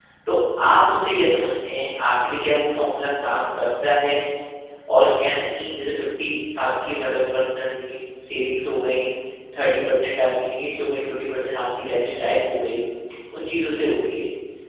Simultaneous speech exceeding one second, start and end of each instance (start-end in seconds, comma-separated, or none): none